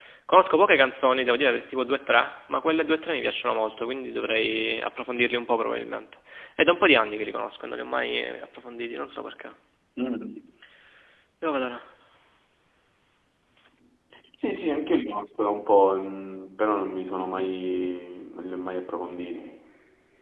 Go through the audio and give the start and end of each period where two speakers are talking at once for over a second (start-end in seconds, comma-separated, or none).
none